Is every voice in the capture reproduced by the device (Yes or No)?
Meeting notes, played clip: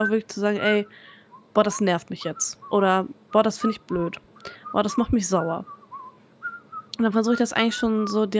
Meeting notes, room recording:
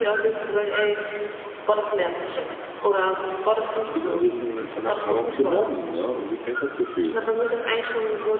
No